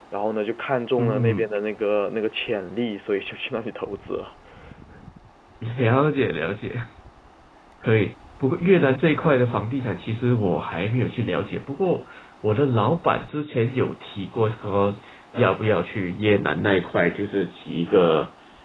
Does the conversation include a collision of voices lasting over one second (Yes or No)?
No